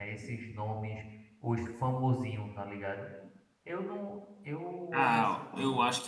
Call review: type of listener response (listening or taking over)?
taking over